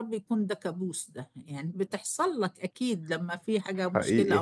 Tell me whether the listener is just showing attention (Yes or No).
Yes